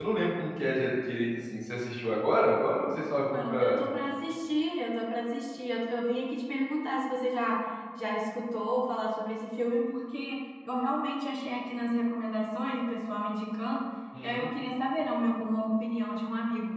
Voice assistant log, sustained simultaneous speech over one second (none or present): none